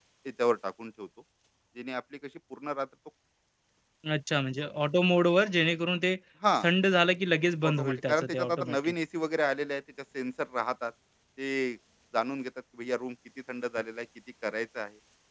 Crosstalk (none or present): present